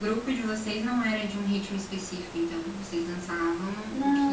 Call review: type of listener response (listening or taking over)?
taking over